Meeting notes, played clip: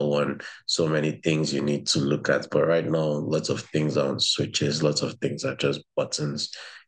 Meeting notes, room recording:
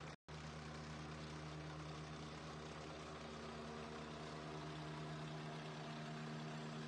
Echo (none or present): none